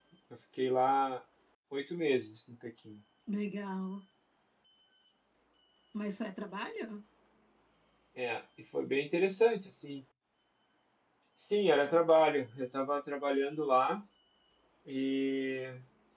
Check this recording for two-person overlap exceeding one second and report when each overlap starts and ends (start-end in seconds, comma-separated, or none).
none